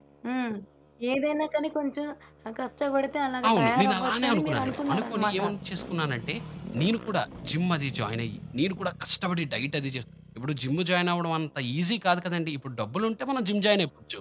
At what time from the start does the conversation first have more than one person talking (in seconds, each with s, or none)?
3.4 s